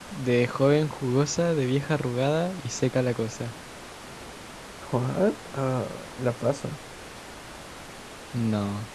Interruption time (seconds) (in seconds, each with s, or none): none